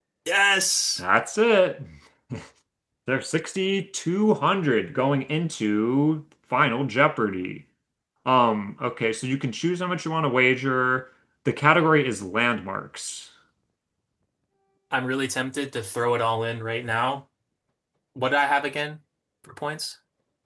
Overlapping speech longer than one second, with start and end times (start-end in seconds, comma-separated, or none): none